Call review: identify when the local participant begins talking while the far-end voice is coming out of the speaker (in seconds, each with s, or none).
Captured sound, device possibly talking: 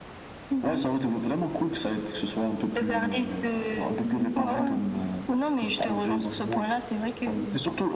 4.0 s